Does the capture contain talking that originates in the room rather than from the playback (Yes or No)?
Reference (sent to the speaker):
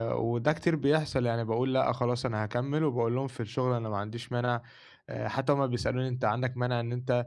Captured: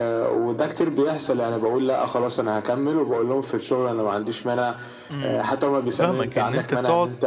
Yes